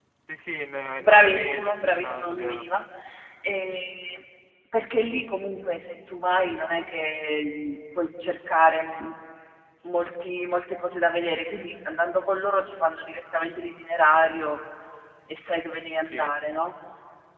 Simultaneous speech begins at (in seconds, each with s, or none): 1.0 s